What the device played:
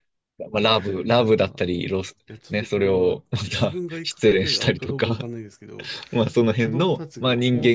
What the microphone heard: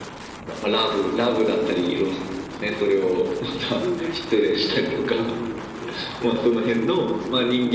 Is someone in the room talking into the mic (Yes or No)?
No